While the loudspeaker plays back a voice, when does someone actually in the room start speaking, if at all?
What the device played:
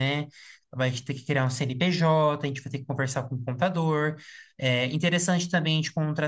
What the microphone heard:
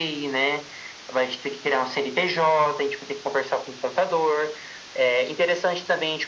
none

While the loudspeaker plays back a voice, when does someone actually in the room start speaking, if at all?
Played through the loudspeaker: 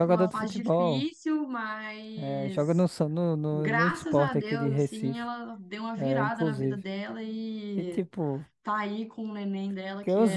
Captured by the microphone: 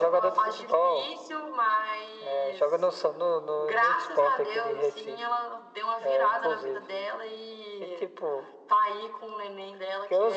none

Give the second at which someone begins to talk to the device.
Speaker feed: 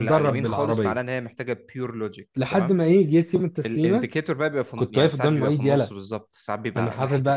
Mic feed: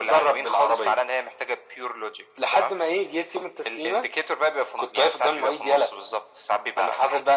none

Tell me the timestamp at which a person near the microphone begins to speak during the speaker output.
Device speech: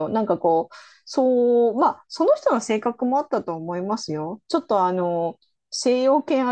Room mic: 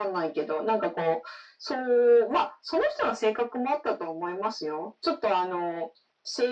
none

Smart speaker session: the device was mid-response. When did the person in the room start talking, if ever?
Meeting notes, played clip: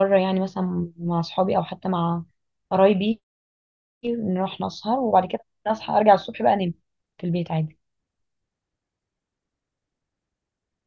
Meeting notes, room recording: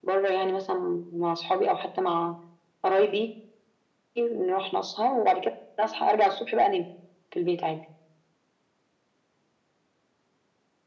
none

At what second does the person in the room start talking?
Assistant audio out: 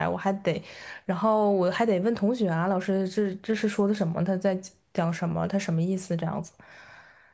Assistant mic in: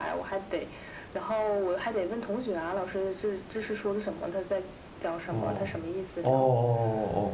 5.2 s

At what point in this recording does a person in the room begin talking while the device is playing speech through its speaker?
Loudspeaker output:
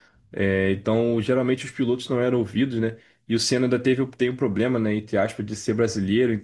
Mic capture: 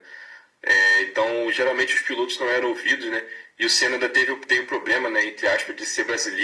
none

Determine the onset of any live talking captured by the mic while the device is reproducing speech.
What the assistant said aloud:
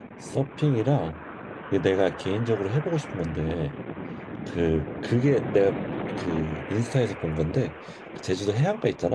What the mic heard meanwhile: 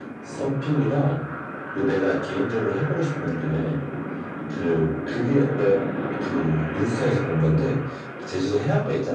none

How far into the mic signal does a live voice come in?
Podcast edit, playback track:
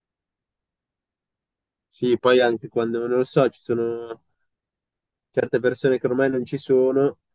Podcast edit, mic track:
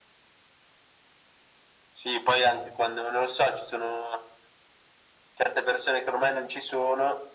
none

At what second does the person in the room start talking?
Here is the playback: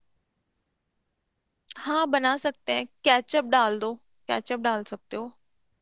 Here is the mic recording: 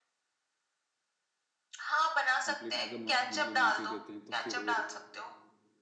2.4 s

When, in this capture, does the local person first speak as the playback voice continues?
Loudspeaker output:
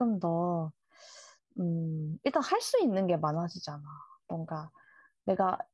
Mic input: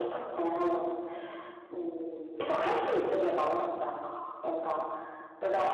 none

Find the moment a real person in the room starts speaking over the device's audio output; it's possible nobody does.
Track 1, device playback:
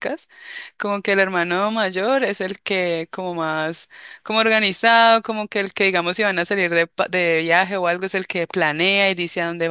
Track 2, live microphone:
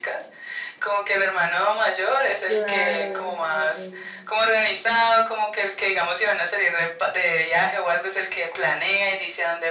2.4 s

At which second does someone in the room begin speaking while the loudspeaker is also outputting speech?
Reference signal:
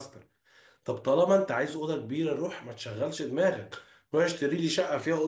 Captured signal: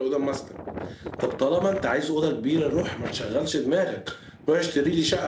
none

